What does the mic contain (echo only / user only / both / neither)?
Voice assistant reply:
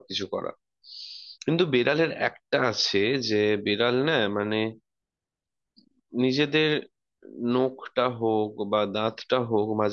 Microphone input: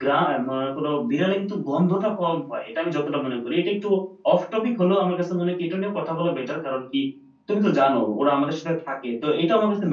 user only